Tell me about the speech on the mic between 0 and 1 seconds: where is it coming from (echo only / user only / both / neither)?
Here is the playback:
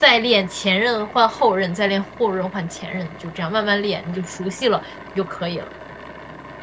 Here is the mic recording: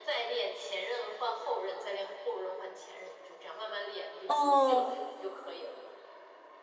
echo only